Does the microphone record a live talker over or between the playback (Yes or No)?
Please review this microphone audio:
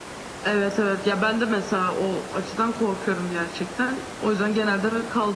No